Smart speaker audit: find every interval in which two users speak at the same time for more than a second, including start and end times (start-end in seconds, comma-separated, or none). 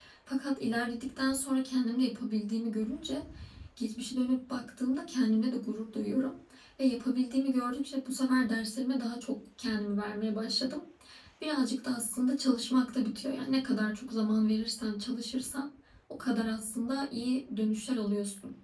none